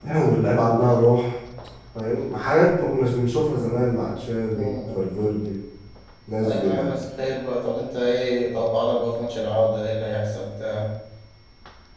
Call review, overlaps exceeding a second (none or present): none